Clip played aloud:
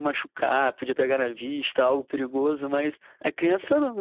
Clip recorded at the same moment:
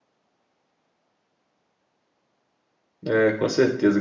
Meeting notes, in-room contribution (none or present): present